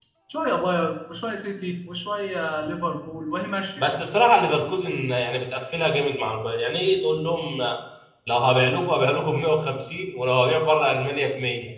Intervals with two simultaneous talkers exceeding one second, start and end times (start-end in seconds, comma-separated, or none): none